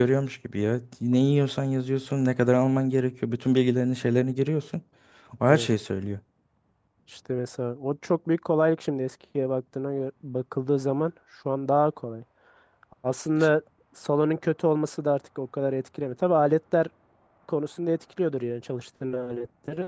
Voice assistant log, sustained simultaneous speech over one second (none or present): none